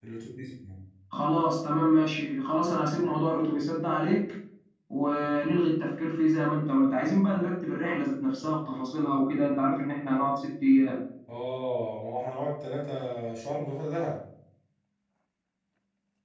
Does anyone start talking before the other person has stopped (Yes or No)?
No